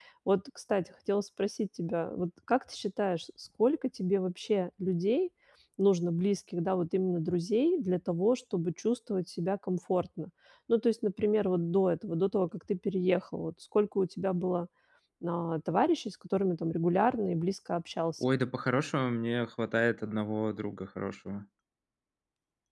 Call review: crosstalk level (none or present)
none